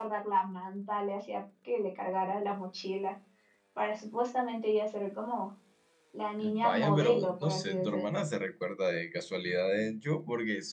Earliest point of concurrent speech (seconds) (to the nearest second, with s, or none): 6 s